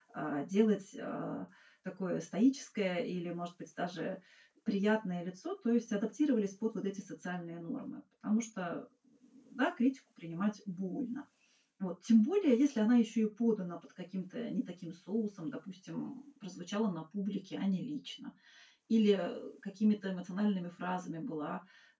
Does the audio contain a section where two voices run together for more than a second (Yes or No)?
No